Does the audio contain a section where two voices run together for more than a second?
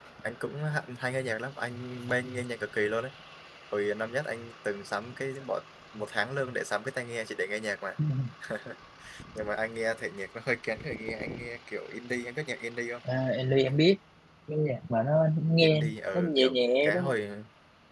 Yes, from 15.6 s

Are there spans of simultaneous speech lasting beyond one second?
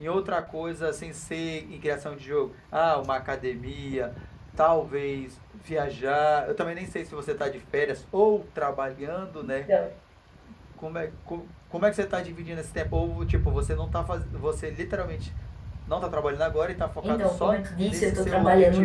Yes, from 17.0 s

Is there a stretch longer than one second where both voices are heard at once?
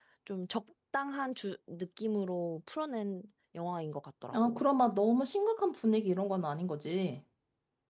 No

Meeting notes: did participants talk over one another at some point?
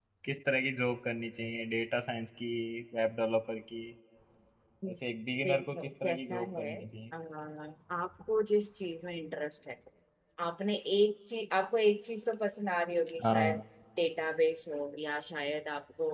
Yes, from 5.4 s

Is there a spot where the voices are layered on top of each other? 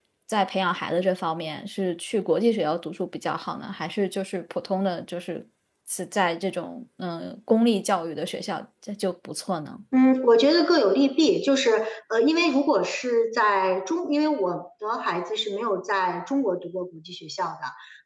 No

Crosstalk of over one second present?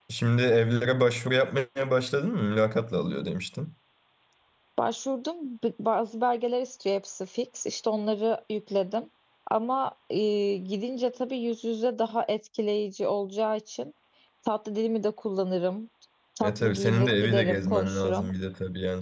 Yes, from 16.4 s

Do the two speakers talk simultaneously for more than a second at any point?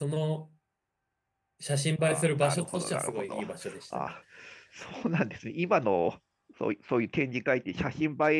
Yes, from 2.0 s

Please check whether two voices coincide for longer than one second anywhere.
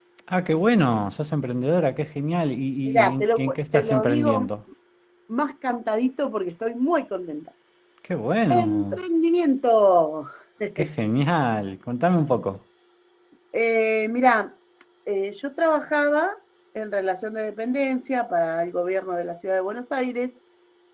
Yes, from 2.9 s

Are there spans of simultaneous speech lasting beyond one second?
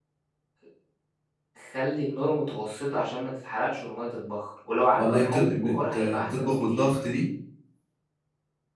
Yes, from 5.0 s

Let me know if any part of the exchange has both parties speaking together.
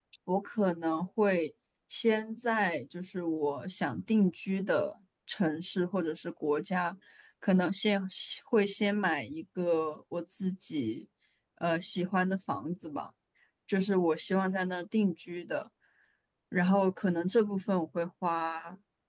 No

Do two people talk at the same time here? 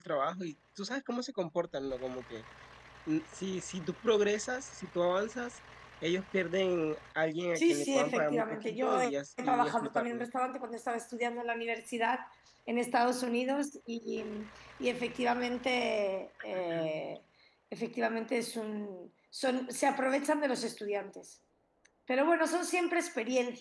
Yes, from 7.6 s

